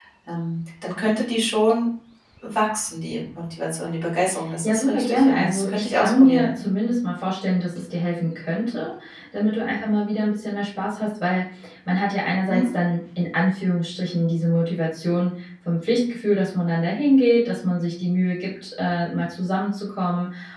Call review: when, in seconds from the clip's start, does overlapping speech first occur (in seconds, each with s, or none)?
4.6 s